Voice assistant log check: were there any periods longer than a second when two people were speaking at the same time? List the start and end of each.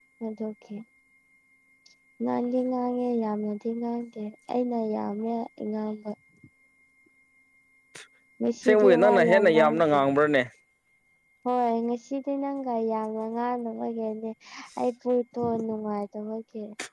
8.6-10.0

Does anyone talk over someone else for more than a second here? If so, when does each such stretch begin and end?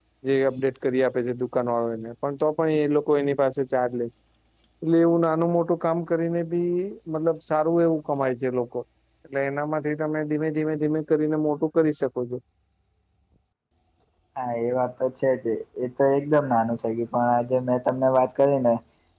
none

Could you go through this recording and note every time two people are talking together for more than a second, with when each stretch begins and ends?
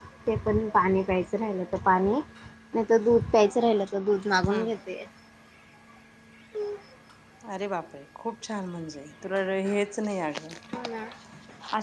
none

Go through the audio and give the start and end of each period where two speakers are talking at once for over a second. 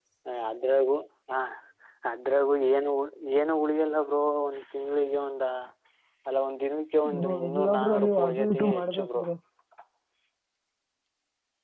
7.1-9.2

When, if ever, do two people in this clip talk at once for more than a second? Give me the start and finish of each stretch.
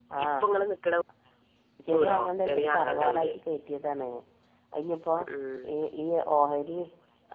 2.0-3.3

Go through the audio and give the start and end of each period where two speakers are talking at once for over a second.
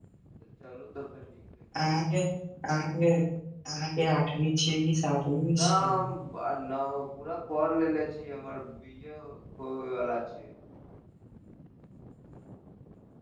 none

